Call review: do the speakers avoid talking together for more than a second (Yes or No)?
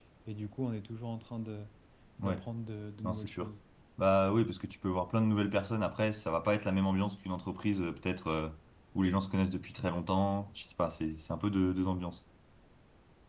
Yes